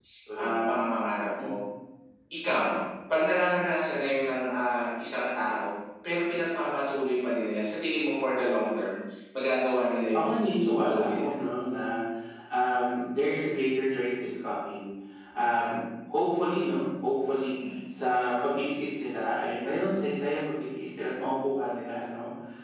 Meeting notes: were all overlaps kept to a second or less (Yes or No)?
Yes